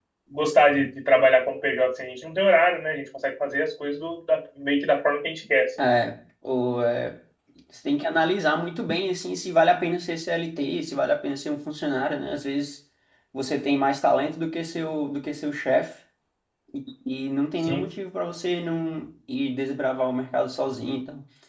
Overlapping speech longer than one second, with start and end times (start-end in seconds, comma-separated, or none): none